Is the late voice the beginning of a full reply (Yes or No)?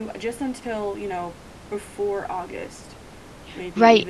Yes